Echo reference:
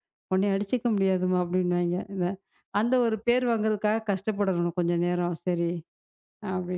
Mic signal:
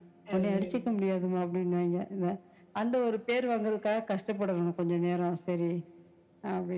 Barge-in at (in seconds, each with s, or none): 0.3 s